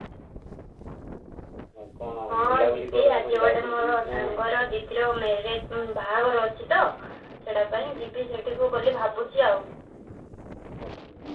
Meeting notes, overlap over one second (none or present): present